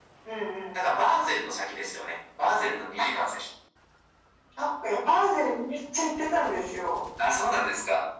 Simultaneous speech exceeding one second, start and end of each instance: none

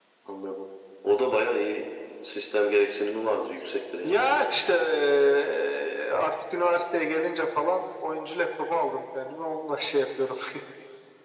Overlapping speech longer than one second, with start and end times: none

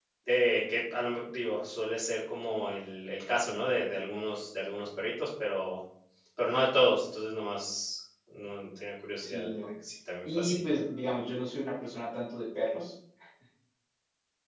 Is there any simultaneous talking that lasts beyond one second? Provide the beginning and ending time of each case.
none

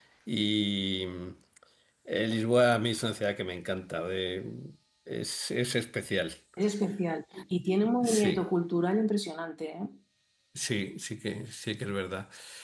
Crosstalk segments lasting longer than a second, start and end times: none

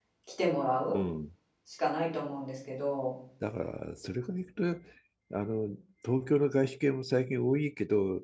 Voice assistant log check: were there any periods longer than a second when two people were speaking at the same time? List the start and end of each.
none

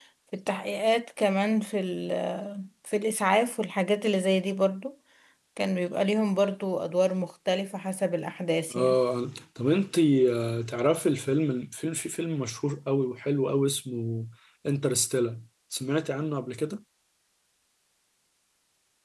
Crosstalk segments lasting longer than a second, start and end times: none

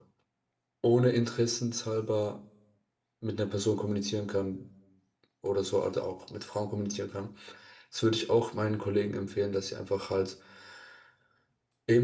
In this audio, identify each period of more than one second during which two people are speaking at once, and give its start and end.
none

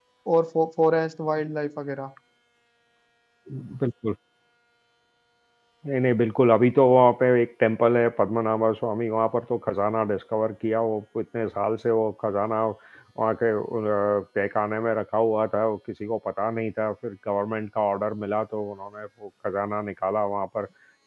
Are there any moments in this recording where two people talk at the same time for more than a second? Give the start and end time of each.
none

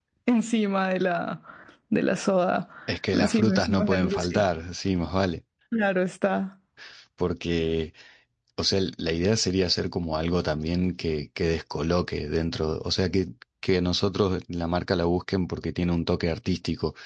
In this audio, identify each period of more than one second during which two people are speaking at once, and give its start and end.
3.1-4.4

